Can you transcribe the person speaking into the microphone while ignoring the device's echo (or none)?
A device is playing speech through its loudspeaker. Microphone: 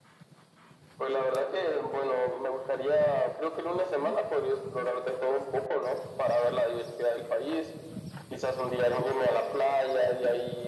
none